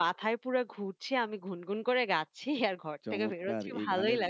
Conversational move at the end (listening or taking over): taking over